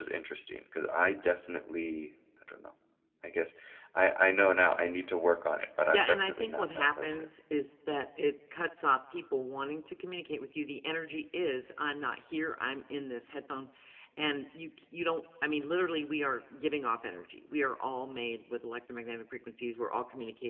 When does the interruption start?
5.9 s

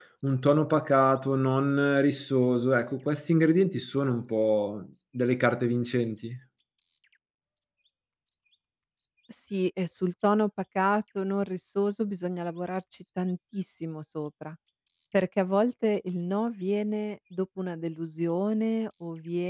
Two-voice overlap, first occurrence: none

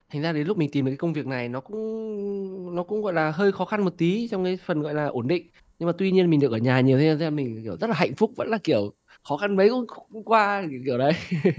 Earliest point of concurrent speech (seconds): none

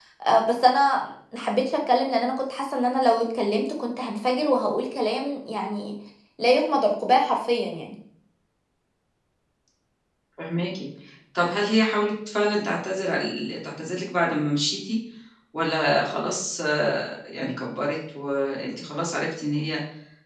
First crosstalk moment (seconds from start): none

